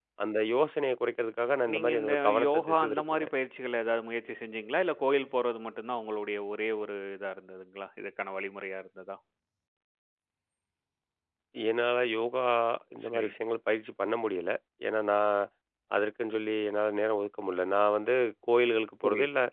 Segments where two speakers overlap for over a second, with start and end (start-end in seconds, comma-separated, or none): 1.7-3.3